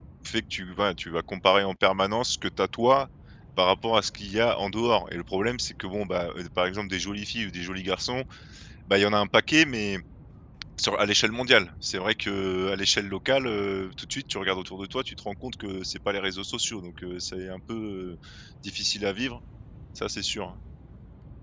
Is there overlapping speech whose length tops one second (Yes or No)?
No